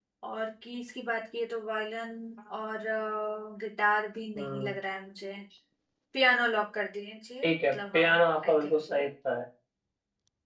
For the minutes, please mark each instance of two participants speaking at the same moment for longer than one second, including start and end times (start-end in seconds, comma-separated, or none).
7.4-9.0